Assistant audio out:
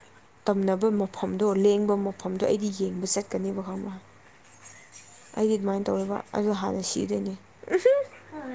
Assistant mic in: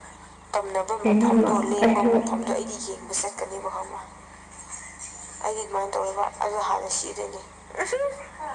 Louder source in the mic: user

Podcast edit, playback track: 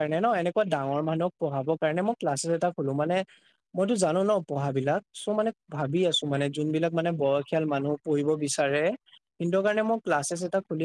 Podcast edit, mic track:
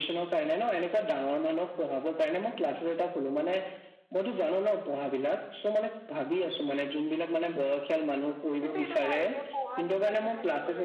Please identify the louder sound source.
echo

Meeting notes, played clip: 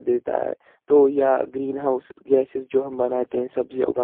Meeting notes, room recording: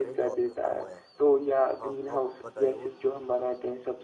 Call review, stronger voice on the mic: echo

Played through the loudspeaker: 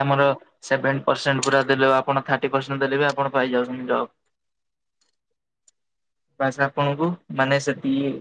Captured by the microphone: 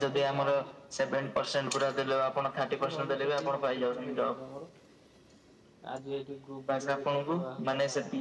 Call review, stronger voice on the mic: echo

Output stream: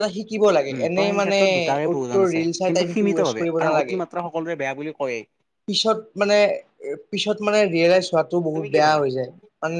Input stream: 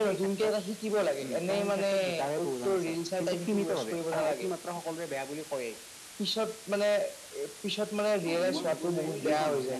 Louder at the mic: echo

